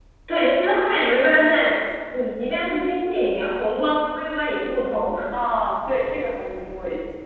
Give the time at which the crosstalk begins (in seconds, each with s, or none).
none